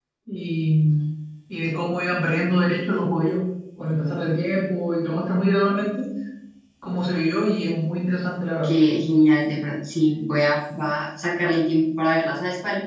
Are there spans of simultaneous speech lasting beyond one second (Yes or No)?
No